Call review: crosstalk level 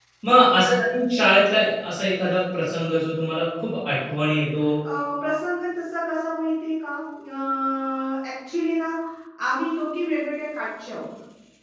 none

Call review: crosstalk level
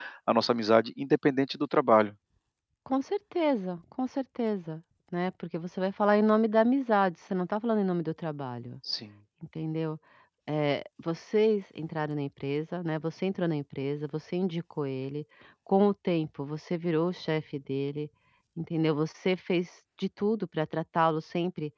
none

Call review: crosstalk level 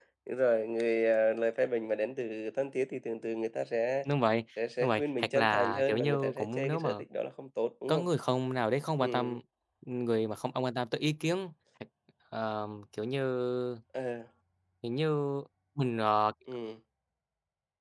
present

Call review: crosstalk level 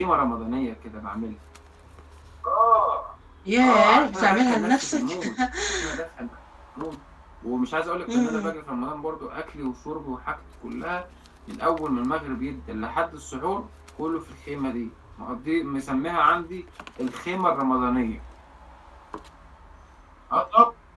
present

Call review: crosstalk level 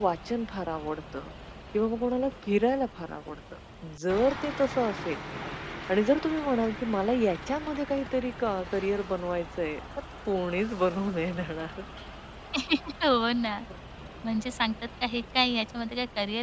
none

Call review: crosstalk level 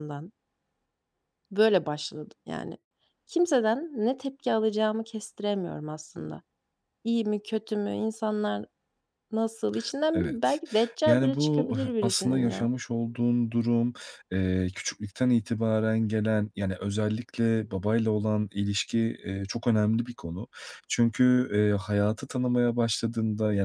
present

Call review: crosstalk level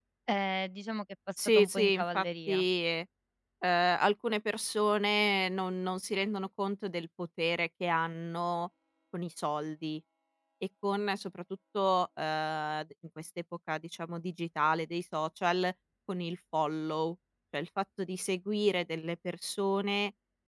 present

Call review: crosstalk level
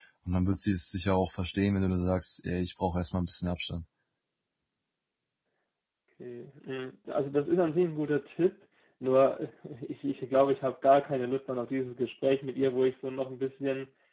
none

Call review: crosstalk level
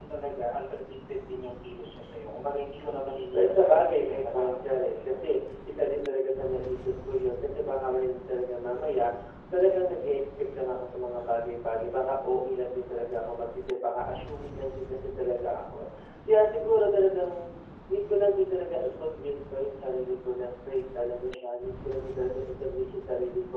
present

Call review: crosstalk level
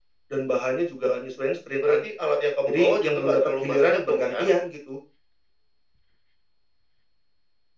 present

